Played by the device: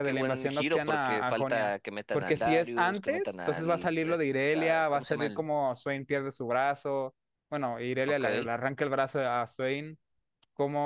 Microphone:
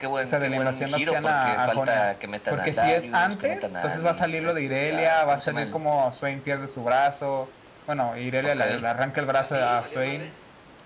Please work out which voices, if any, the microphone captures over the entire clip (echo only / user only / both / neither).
both